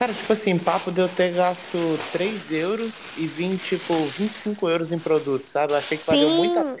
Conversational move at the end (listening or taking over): taking over